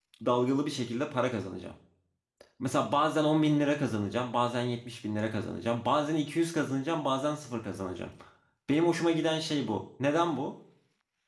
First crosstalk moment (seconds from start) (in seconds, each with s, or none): none